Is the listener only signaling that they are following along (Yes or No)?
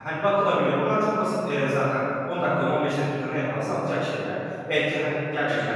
Yes